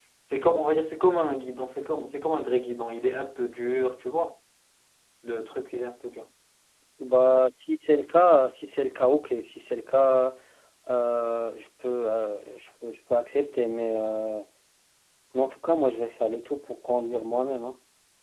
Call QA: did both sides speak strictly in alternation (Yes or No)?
Yes